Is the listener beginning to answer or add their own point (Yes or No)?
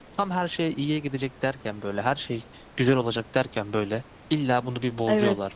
No